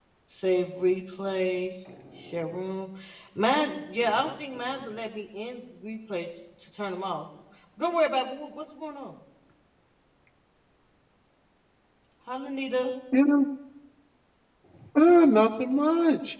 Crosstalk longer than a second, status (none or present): none